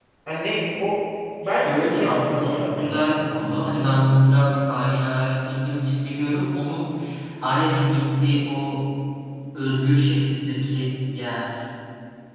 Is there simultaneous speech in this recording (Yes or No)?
Yes